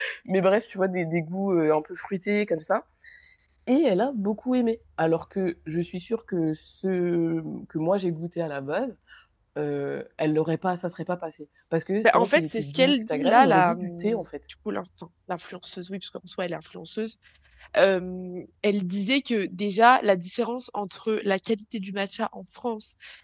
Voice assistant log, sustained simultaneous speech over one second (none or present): present